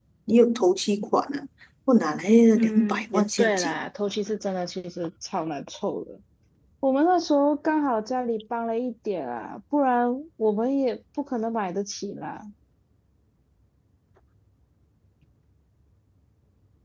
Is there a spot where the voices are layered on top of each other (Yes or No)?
Yes